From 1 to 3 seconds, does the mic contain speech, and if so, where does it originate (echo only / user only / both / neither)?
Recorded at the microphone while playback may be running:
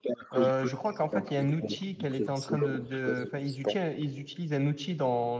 both